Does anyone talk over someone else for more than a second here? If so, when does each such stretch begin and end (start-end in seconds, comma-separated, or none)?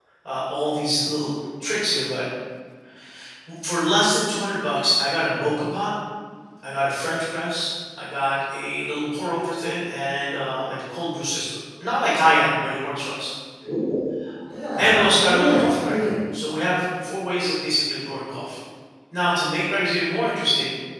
14.8-16.1